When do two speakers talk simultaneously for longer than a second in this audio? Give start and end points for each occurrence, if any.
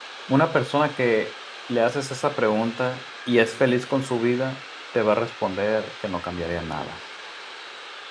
none

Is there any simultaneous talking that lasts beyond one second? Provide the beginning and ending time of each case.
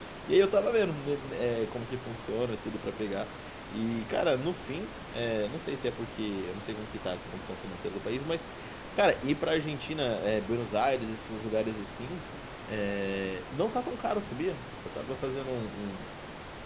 none

